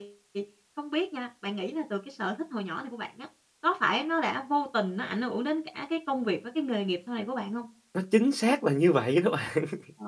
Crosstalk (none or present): none